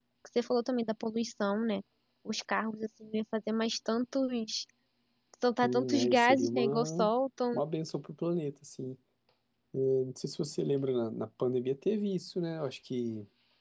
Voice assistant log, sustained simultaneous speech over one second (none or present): present